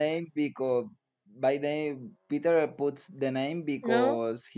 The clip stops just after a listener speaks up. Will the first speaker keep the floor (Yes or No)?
Yes